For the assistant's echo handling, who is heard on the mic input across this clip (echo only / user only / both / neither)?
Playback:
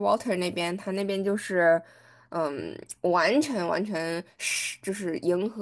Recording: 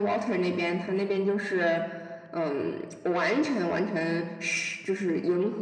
echo only